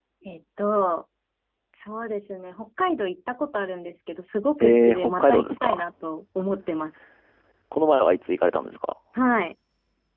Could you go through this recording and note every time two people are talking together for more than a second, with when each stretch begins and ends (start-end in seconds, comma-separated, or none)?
4.6-5.8